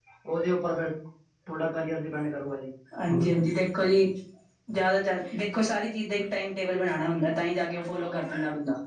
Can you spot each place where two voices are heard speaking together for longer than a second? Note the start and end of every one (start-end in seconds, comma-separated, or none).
none